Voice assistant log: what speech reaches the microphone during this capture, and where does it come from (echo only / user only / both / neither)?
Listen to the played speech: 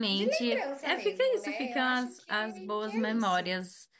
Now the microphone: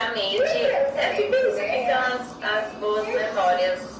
echo only